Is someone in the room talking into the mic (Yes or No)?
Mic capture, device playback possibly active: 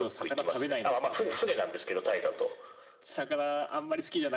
Yes